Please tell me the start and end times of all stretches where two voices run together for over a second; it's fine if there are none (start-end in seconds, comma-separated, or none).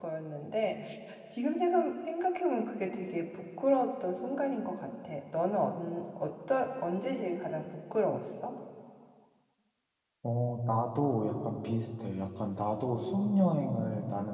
none